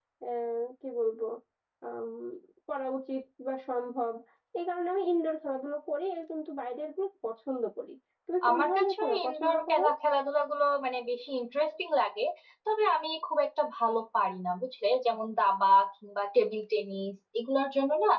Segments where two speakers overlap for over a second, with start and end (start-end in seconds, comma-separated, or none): 8.5-9.8